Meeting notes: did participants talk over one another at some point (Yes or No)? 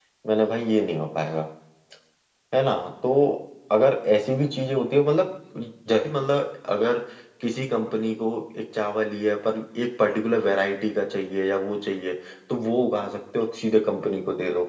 No